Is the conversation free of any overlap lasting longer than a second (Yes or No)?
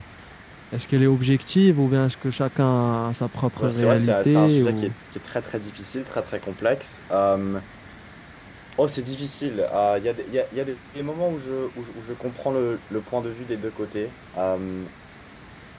No